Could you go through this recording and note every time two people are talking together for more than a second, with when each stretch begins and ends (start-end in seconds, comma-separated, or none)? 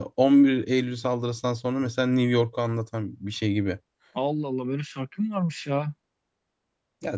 none